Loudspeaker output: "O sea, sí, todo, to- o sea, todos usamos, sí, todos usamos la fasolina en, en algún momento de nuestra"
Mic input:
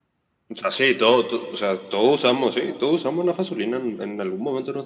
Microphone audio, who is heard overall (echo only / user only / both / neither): echo only